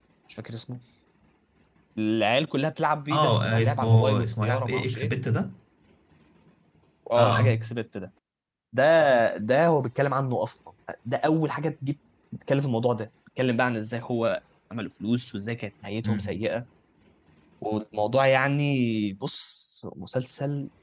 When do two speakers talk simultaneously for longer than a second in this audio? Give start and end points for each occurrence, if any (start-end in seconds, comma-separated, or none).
3.1-5.1